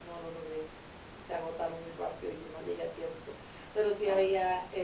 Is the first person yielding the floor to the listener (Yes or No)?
No